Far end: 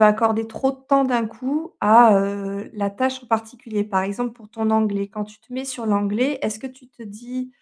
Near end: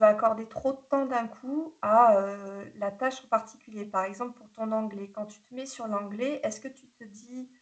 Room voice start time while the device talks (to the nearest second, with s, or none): none